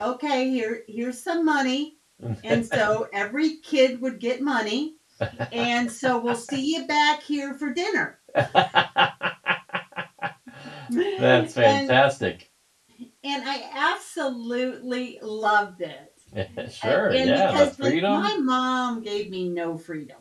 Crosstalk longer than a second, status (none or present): present